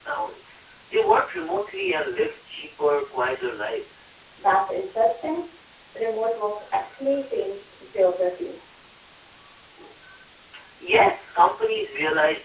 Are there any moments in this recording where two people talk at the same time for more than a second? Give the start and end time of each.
none

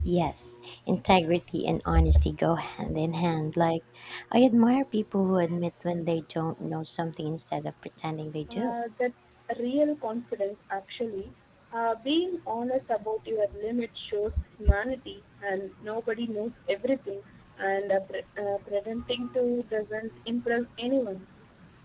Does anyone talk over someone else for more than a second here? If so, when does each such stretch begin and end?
none

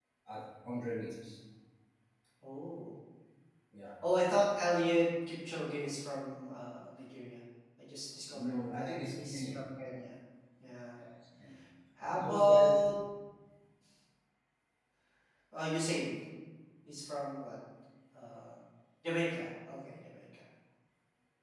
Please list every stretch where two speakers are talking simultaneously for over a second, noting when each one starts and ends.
8.3-9.6

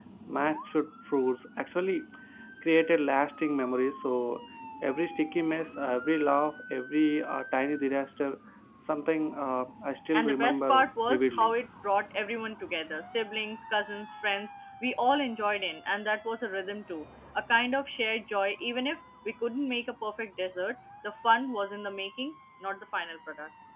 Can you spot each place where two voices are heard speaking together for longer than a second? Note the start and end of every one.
10.1-11.5

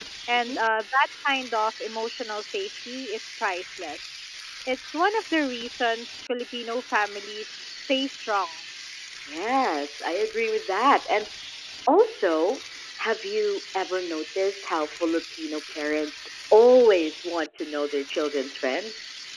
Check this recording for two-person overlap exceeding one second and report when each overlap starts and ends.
none

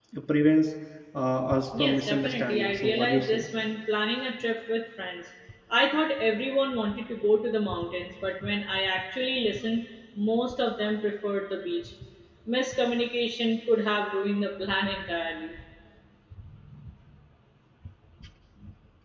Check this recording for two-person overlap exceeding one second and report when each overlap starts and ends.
1.8-3.5

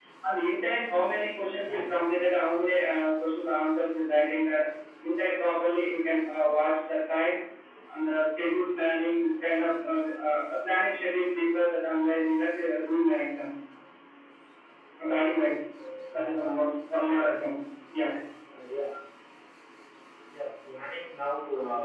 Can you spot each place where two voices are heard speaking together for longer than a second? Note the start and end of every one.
none

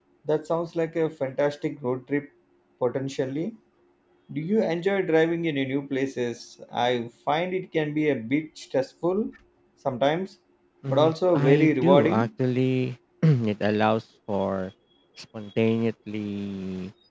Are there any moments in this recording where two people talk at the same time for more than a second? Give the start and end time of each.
10.9-12.3

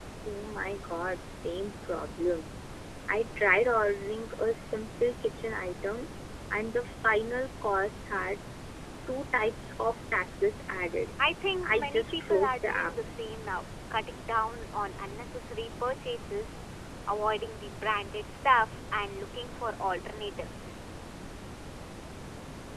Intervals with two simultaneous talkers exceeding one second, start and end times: 11.6-12.9

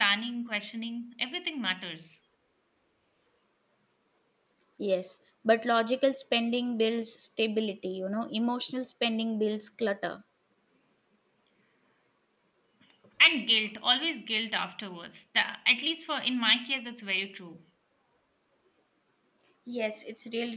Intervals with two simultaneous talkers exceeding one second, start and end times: none

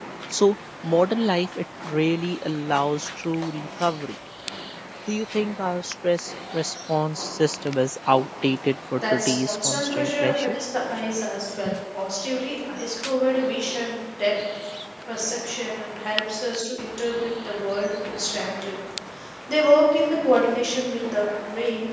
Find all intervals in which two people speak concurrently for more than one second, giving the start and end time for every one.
9.0-10.5

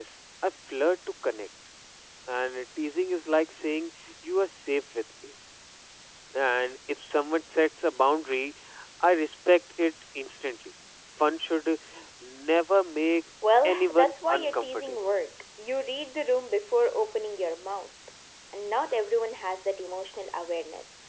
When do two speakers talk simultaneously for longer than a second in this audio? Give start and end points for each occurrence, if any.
13.8-14.9

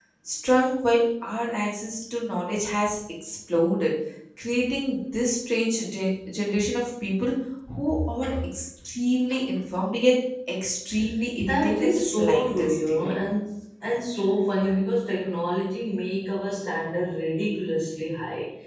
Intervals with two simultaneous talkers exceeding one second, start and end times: 11.4-13.2

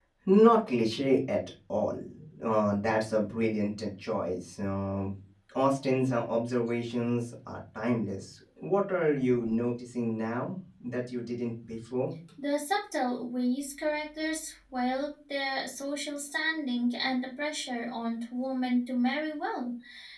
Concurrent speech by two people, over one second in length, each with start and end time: none

